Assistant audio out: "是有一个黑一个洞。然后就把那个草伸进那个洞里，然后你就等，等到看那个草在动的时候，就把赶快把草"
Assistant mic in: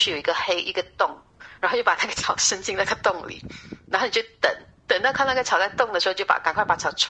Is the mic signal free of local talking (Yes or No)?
Yes